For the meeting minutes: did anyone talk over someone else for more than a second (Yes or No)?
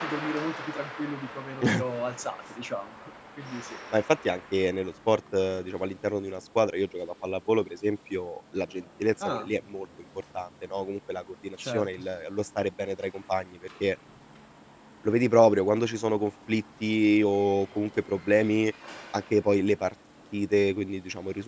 No